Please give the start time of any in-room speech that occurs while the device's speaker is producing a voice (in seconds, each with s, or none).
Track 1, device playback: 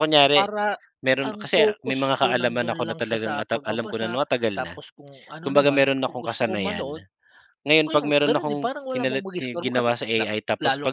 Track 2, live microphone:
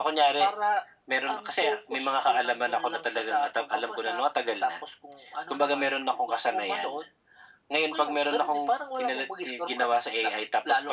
none